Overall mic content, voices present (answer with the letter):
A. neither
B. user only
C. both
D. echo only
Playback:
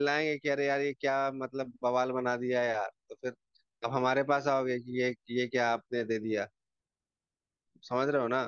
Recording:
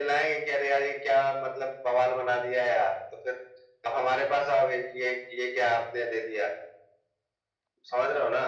D